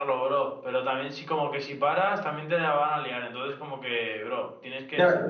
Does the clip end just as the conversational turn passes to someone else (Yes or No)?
Yes